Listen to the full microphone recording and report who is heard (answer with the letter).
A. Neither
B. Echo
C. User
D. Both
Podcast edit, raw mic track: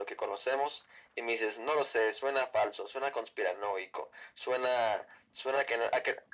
B